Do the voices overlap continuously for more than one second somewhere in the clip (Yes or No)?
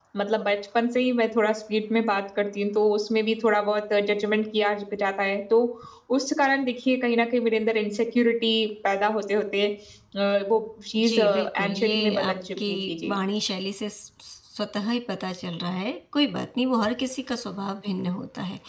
Yes